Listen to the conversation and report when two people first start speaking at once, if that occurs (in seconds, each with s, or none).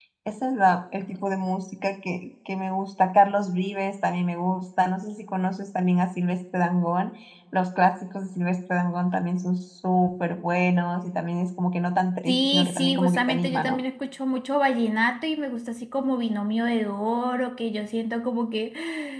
12.3 s